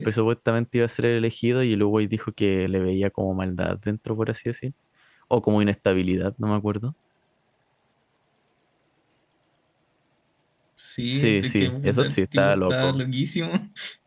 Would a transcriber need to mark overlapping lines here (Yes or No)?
Yes